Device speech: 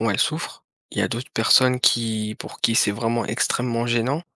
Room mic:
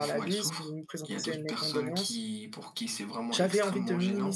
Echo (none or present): present